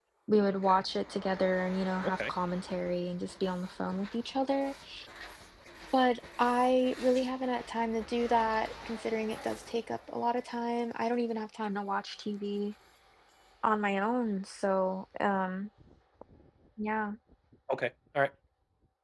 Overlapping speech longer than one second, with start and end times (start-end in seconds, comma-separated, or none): none